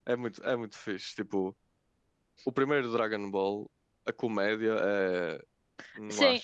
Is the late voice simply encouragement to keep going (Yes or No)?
No